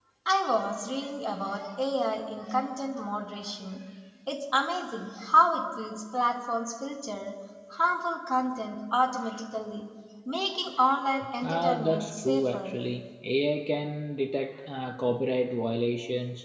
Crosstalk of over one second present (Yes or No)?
Yes